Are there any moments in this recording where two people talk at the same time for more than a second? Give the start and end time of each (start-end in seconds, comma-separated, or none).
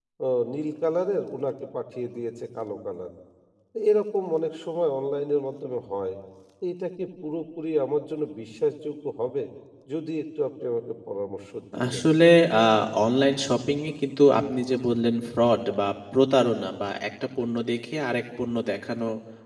none